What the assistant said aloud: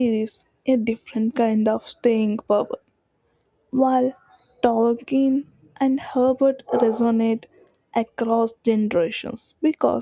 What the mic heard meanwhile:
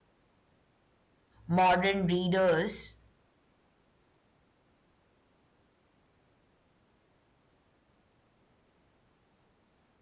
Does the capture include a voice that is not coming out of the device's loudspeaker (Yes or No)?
Yes